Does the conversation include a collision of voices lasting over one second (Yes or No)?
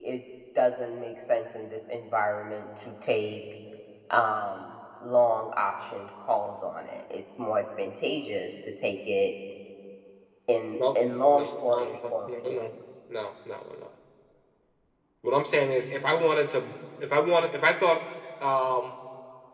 Yes